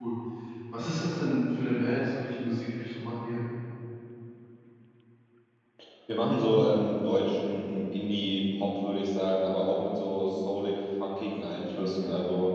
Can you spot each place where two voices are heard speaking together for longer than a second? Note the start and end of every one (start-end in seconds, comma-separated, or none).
none